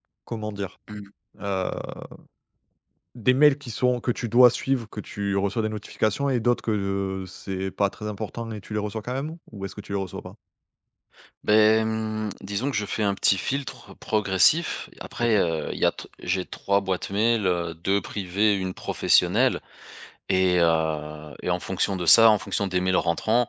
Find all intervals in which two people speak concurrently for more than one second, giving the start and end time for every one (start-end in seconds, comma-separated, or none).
none